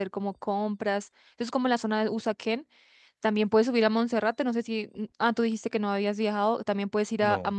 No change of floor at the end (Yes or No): Yes